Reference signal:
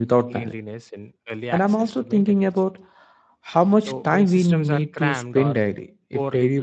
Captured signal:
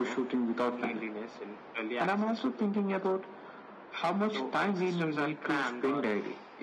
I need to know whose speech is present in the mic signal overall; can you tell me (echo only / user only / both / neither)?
echo only